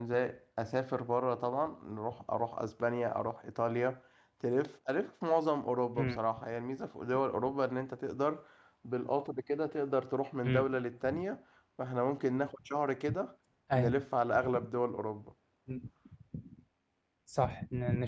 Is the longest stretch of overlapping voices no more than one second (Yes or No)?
Yes